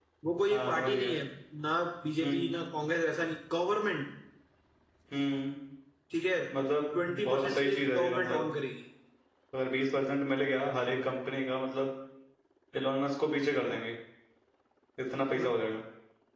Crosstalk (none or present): present